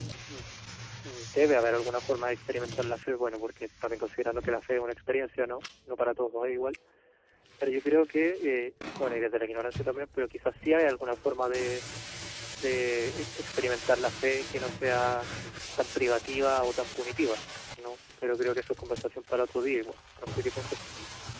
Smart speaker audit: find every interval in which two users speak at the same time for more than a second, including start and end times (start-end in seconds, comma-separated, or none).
none